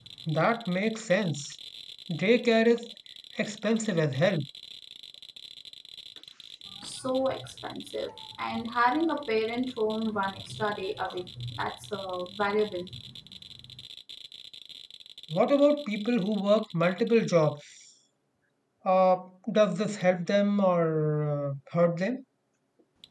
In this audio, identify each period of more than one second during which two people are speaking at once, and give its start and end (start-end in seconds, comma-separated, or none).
none